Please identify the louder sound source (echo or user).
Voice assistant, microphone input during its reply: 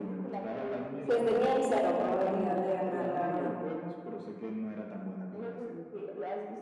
user